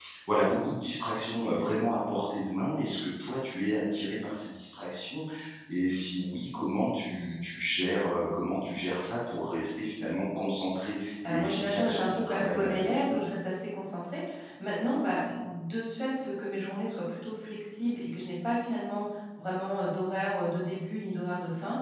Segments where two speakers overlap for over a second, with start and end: 11.3-12.9

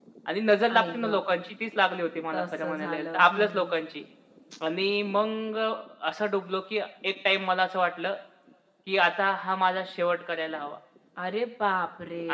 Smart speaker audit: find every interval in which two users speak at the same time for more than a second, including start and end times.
2.3-3.7

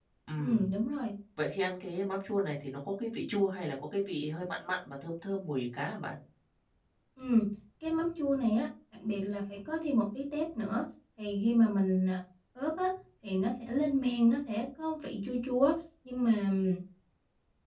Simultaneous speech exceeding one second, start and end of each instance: none

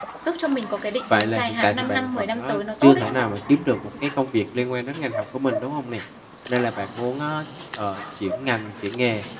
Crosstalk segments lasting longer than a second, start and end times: 1.1-3.0

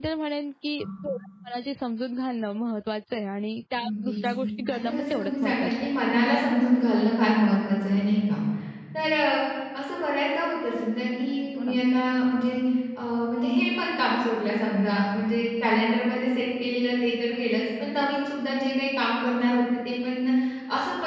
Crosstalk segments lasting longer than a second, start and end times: 4.7-5.9

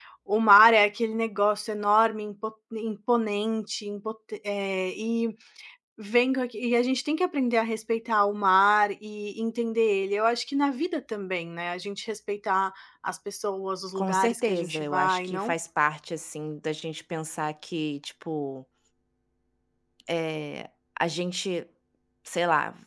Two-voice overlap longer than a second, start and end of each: 14.0-15.5

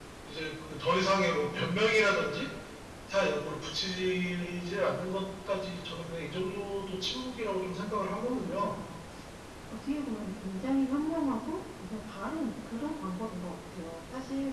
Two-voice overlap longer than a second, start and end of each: none

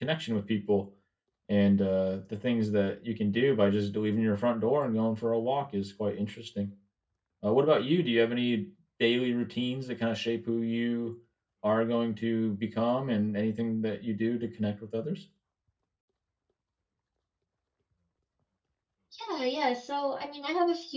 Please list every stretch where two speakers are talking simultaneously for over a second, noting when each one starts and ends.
none

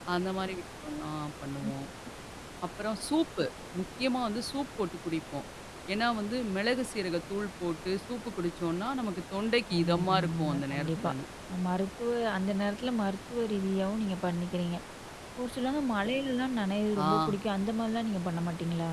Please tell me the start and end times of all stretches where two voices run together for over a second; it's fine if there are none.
9.7-11.1

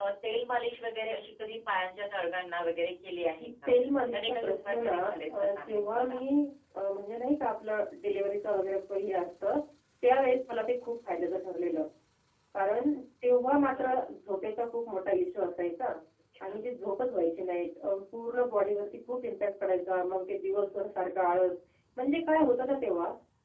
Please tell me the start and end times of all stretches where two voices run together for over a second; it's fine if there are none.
4.1-6.2

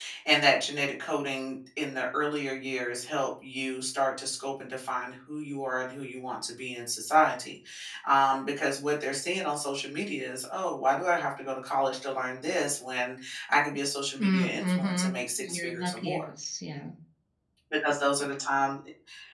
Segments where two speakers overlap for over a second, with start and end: 14.2-16.2

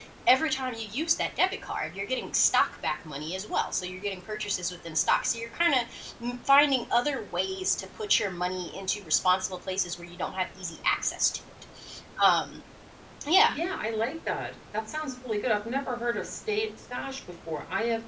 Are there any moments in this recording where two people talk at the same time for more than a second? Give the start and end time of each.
none

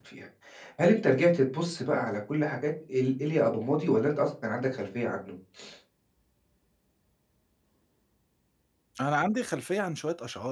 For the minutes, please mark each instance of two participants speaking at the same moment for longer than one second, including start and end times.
none

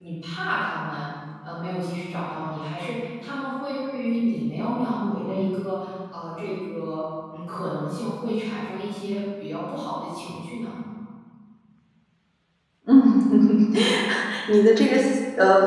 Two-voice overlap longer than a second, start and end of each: none

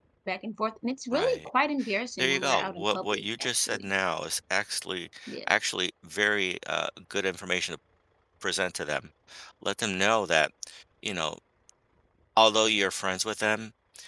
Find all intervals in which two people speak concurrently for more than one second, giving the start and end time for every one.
2.2-3.9

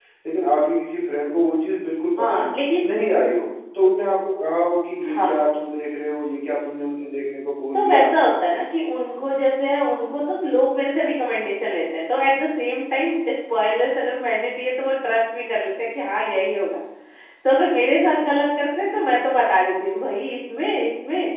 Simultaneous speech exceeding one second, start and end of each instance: none

